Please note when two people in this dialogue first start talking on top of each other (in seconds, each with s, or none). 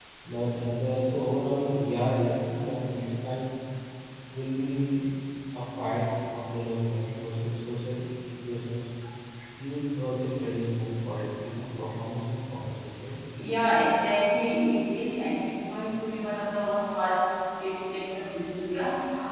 none